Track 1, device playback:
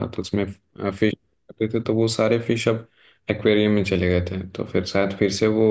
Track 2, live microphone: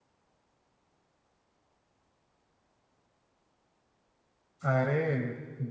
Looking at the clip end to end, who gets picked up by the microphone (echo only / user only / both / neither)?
user only